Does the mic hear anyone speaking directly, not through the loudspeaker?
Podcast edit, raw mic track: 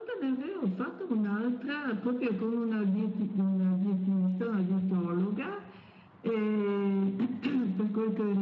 No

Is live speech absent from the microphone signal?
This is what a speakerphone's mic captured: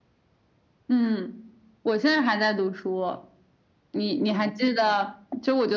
Yes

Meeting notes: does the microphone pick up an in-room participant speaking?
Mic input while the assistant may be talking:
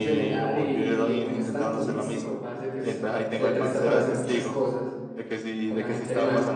Yes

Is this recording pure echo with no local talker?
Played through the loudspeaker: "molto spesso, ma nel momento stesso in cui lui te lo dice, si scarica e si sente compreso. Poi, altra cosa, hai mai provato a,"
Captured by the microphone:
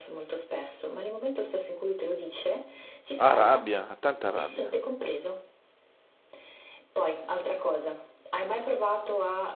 No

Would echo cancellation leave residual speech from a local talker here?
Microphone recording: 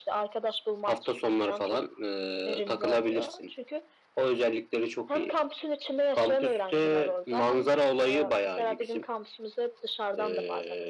No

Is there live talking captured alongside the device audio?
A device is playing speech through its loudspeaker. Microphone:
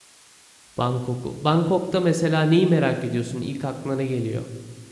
Yes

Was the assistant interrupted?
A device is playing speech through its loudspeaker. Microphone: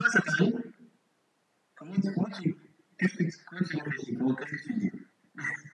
No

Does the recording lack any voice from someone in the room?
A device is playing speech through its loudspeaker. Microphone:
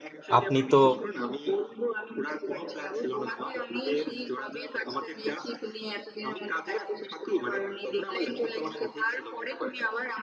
No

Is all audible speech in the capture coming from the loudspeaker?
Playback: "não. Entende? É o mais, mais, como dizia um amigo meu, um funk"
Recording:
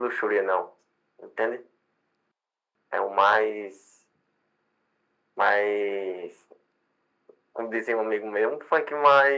Yes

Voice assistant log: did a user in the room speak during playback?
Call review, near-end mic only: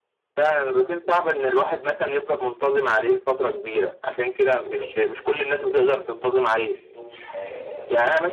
Yes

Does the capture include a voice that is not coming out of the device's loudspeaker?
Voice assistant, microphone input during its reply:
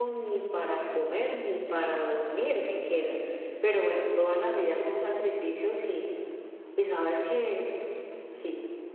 Yes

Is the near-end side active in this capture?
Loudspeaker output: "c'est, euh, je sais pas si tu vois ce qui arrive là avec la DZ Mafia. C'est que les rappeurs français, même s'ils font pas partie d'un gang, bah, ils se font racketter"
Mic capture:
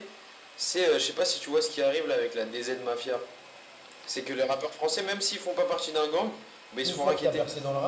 Yes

